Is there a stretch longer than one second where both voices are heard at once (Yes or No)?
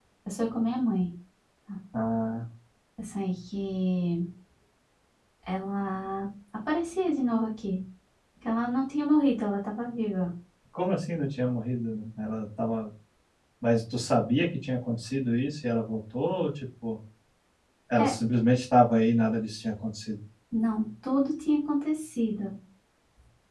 No